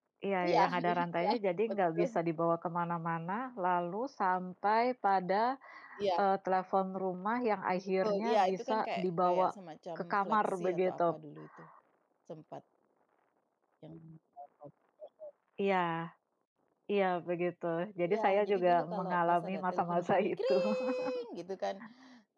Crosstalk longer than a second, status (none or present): present